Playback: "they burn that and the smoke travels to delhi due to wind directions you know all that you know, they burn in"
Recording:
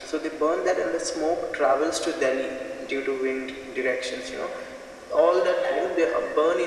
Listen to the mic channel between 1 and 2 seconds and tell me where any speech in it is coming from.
echo only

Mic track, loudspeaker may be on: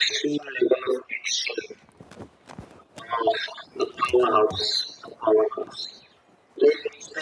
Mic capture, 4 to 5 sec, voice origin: both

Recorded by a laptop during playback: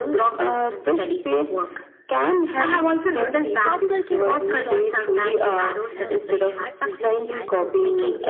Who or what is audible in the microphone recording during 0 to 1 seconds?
echo only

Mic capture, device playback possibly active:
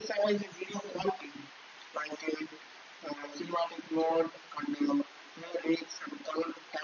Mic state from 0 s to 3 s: echo only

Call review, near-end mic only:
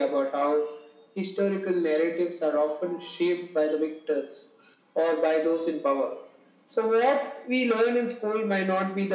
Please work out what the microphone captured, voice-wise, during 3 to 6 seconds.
echo only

